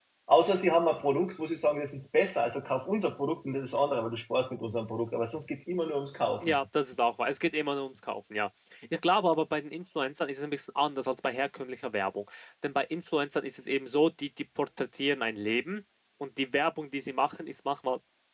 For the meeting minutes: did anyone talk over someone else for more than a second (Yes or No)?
No